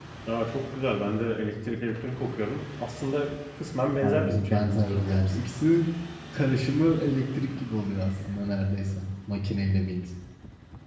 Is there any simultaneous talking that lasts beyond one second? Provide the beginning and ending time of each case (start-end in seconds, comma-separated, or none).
4.0-5.4